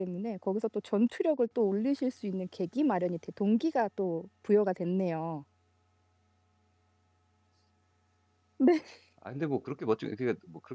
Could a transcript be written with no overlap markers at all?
Yes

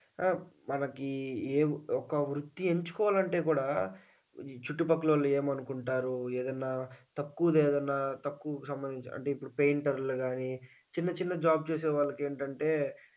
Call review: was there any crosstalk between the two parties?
No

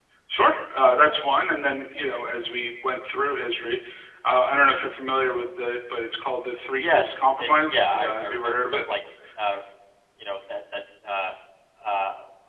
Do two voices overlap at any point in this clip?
Yes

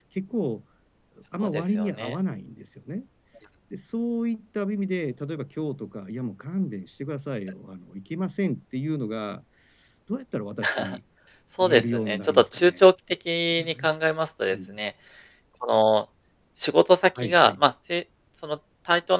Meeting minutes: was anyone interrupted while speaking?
Yes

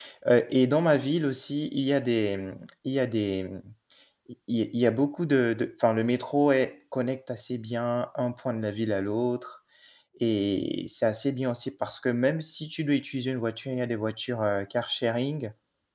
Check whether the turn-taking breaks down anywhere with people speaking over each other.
No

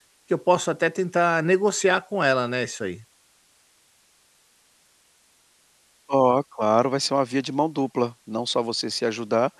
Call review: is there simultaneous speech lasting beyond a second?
No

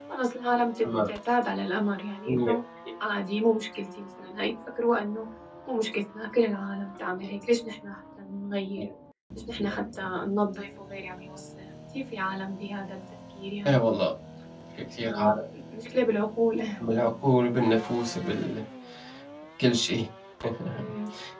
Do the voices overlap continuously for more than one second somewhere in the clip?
No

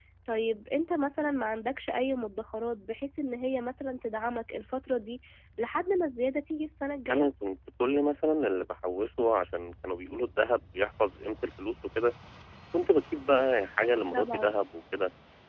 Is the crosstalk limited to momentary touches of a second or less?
Yes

